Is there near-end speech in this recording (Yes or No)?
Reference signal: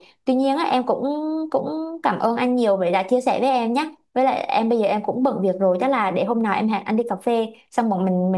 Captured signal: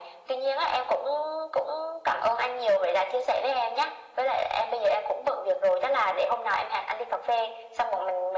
No